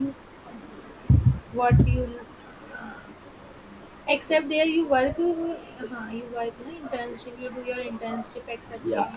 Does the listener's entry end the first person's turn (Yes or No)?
Yes